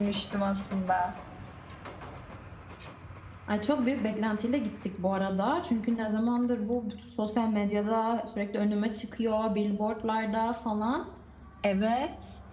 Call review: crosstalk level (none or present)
none